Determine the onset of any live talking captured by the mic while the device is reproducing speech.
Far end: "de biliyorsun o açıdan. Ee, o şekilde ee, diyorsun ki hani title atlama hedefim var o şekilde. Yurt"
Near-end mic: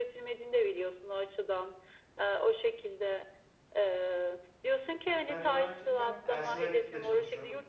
5.3 s

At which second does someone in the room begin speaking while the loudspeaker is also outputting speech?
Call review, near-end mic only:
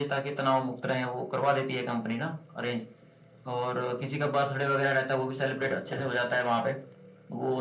none

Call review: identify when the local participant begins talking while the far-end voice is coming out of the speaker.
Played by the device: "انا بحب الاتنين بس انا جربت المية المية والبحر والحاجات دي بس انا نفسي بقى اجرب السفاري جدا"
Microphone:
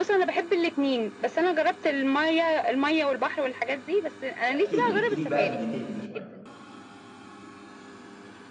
4.5 s

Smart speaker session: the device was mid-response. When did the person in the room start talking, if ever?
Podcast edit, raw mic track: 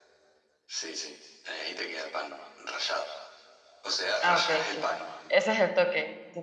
4.2 s

